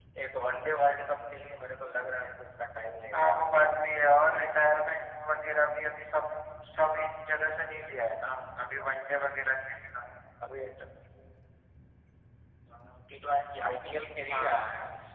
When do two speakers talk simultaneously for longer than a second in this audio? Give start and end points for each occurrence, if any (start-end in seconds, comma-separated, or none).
none